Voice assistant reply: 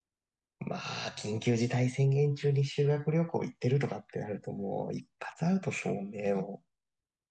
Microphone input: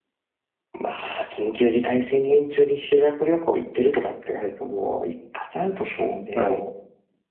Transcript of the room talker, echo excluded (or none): はい。